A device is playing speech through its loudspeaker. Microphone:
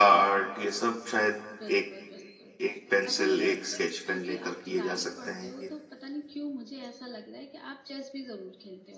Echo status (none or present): present